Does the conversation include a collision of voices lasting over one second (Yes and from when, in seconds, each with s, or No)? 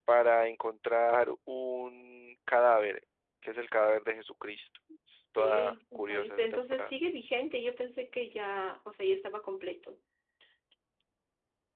Yes, from 5.4 s